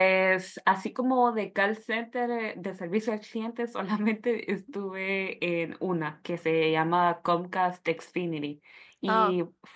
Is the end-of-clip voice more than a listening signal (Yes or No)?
No